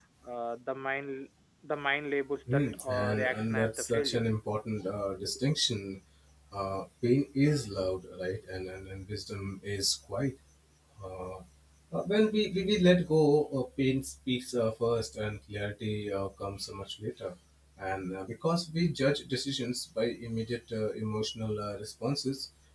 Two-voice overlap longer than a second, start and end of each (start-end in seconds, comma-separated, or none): 2.5-4.2